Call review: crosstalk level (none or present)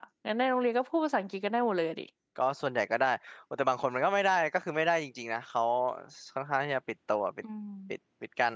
none